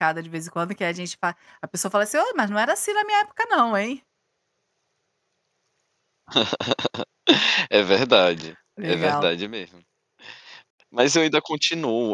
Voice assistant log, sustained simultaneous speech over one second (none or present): none